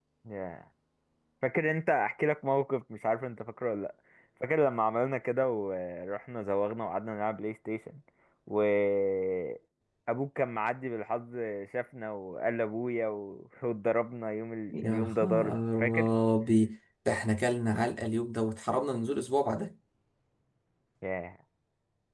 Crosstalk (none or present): present